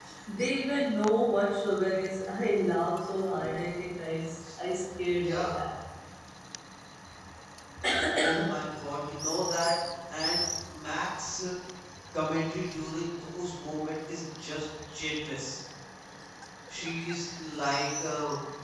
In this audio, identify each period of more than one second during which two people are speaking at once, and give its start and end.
none

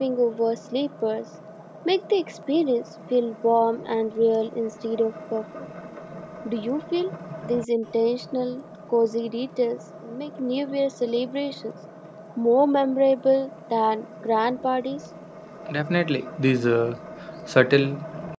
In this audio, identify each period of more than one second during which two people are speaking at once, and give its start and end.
none

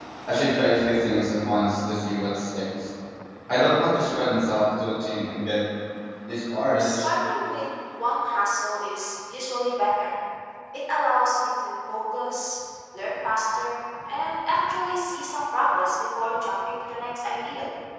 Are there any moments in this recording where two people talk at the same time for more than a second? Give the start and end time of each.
none

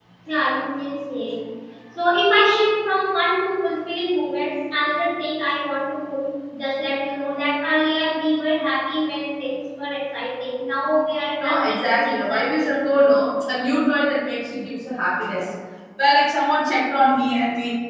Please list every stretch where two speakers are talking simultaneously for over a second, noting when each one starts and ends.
11.4-13.0

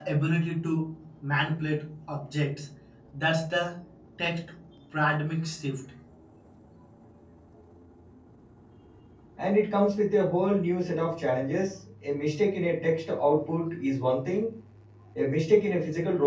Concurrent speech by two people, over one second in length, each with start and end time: none

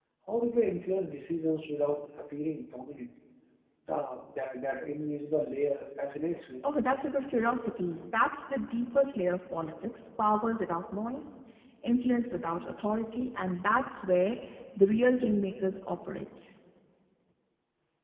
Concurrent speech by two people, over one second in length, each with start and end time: none

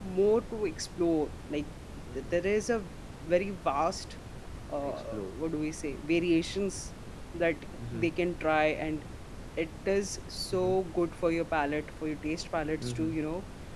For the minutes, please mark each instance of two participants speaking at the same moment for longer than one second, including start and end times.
none

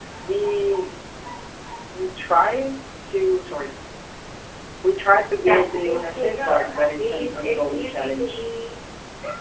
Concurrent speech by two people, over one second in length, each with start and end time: 5.4-8.4

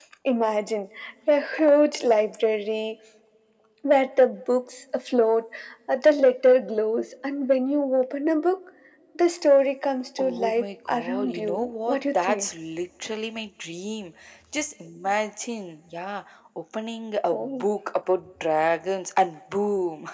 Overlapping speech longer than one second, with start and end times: 10.2-12.5

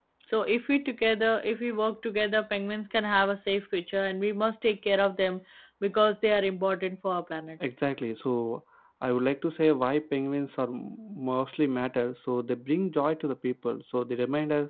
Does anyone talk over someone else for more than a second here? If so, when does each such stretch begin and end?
none

